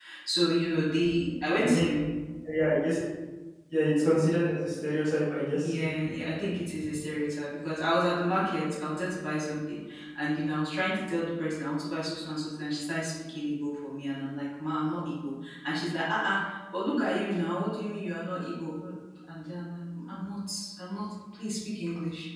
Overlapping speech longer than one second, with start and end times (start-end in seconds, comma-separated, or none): none